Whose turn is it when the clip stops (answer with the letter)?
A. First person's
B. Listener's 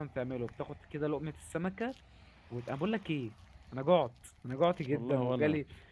A